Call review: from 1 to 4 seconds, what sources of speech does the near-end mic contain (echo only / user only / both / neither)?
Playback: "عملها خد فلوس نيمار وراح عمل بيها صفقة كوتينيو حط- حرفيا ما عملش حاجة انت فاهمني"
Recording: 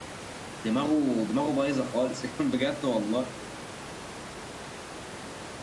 user only